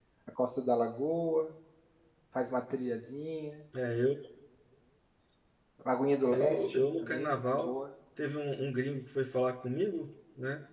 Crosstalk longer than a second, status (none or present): present